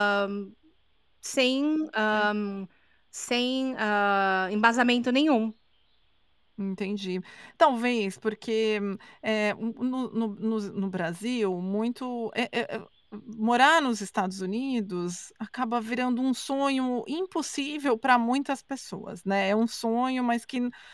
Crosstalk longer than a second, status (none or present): none